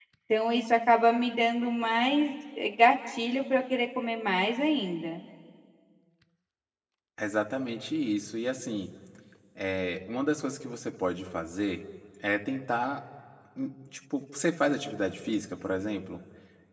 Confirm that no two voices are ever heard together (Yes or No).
Yes